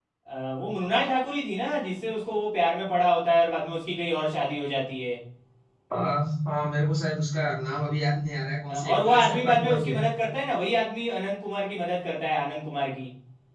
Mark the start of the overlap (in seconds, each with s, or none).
8.7 s